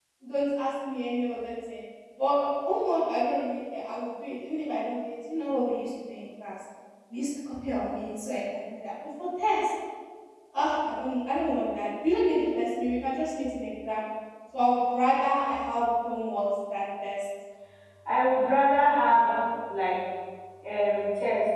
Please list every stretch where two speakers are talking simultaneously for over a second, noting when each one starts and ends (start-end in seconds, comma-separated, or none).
none